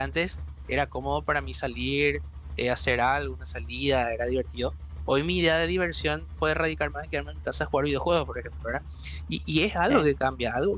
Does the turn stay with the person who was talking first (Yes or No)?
Yes